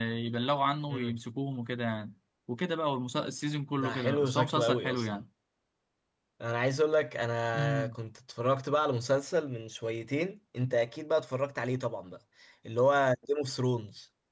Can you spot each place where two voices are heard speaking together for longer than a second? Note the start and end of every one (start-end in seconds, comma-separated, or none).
3.8-5.2